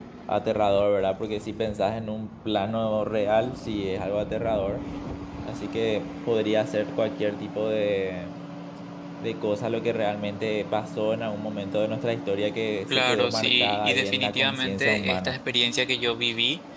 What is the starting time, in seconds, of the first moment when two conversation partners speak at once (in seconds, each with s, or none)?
12.9 s